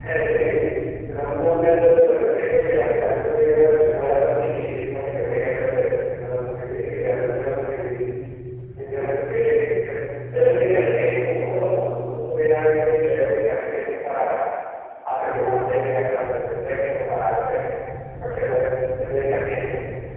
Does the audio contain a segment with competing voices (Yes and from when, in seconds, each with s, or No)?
No